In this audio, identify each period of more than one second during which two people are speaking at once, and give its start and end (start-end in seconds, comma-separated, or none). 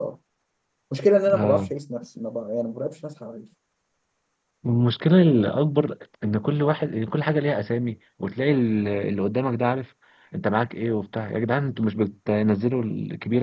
none